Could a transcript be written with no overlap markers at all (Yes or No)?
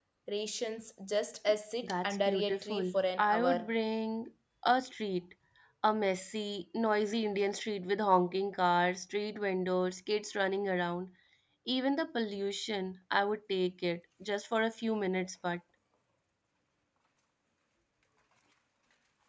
No